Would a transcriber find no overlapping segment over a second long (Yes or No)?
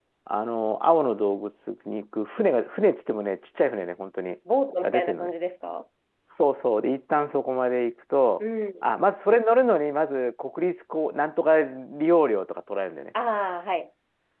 Yes